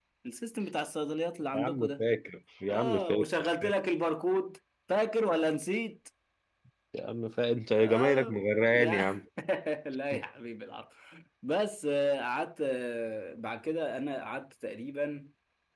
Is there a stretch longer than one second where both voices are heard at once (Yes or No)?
Yes